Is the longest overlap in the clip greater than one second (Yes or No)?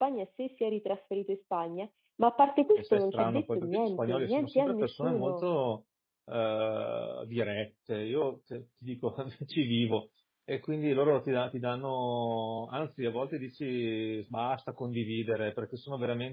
Yes